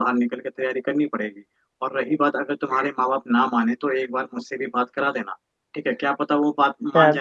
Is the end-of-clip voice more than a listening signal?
Yes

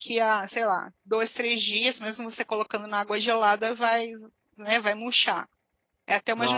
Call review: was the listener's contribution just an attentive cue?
Yes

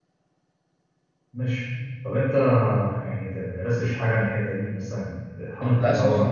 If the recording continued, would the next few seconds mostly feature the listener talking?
Yes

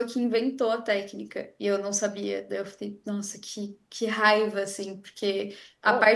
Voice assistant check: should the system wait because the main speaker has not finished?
Yes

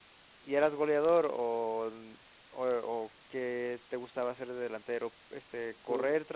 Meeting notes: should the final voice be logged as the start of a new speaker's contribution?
No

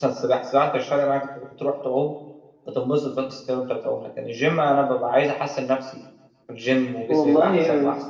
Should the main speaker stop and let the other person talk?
Yes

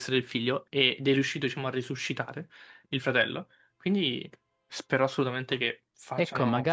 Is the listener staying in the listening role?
No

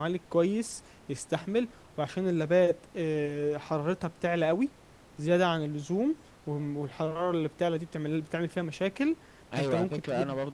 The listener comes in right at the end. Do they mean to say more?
Yes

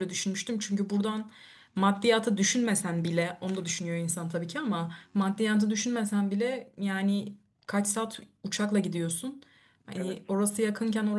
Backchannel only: Yes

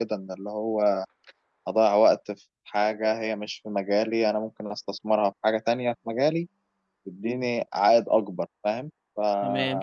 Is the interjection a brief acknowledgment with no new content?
No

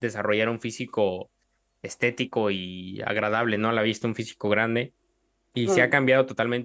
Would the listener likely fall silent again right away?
Yes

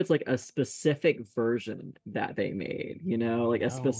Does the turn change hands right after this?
No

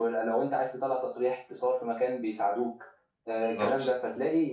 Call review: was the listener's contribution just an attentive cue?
Yes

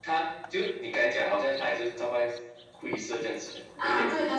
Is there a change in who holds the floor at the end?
Yes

